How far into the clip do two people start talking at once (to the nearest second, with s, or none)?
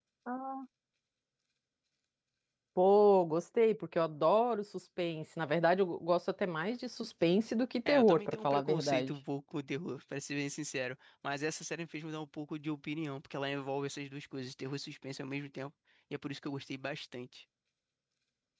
8 s